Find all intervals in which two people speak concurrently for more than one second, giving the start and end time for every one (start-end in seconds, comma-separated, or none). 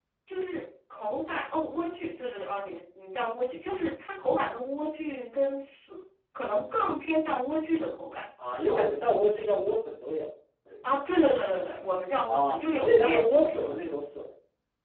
12.2-13.8